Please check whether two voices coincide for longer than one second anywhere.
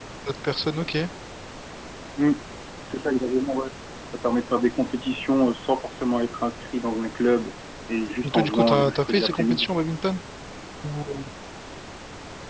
Yes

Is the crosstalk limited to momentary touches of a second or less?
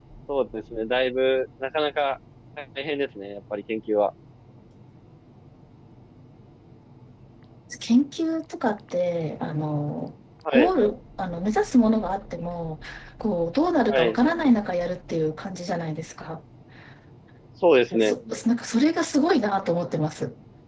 Yes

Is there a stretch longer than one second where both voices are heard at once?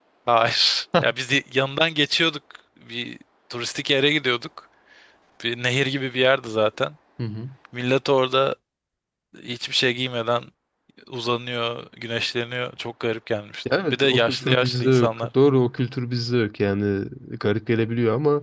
Yes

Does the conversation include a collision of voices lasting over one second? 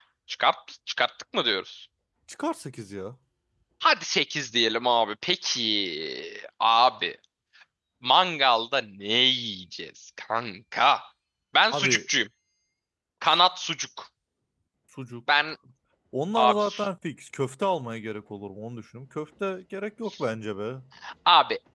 No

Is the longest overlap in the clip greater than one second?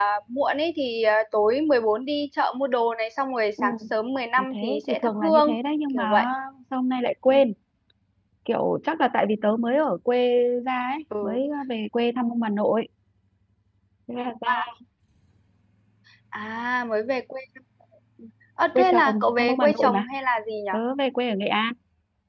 Yes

